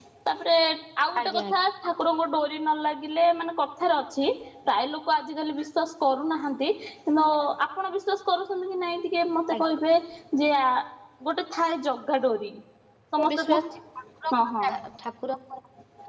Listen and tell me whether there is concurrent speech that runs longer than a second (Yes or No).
No